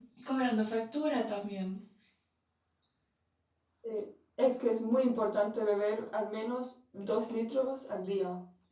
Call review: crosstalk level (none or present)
none